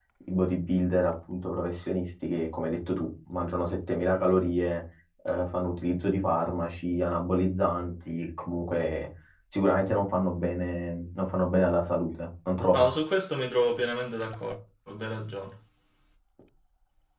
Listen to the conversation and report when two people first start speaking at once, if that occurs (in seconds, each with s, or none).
none